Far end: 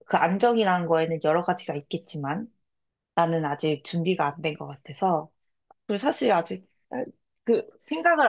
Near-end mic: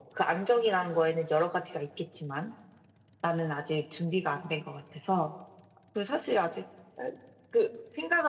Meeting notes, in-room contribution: none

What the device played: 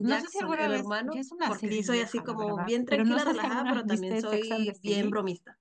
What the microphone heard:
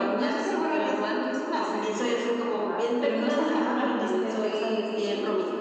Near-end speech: none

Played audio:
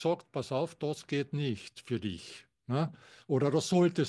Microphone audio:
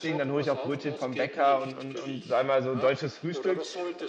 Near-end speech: present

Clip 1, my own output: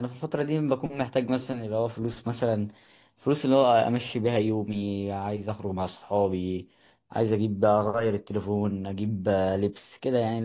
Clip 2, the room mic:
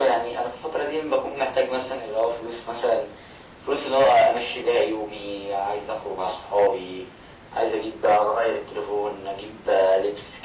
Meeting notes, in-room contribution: none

